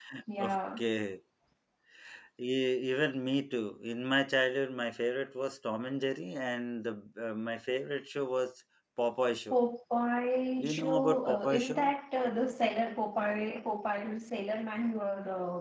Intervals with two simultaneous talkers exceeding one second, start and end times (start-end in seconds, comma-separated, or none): 10.6-11.9